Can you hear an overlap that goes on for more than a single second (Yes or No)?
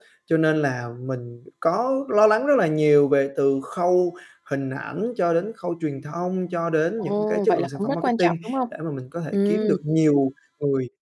Yes